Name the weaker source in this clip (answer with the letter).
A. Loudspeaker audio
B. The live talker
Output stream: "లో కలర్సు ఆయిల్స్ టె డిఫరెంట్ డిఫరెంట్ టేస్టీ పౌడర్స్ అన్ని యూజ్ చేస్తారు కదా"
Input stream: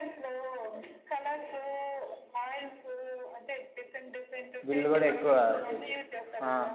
A